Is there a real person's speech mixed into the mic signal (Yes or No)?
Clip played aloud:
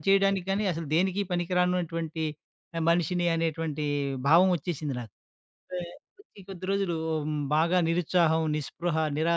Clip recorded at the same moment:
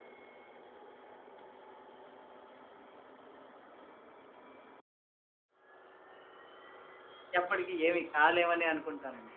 Yes